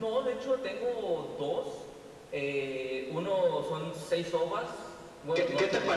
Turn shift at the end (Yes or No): Yes